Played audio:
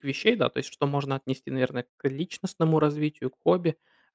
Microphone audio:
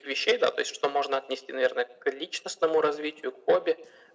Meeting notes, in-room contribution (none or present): none